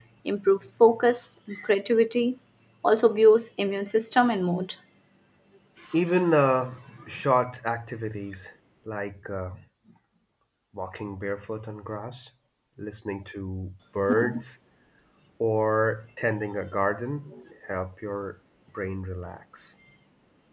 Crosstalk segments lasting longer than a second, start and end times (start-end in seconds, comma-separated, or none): none